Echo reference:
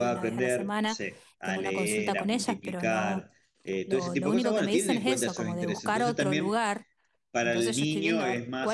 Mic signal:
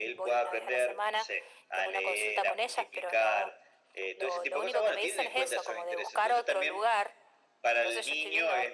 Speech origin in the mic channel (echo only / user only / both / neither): echo only